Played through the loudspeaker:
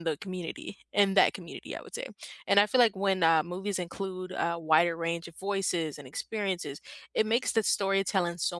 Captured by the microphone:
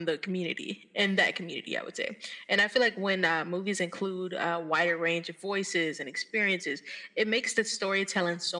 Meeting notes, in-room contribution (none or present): none